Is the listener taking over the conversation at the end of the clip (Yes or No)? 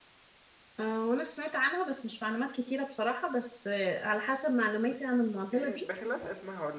Yes